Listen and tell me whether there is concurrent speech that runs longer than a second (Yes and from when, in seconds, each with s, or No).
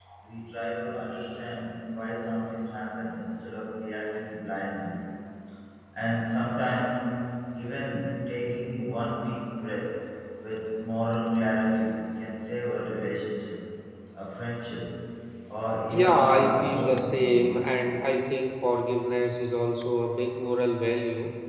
Yes, from 15.9 s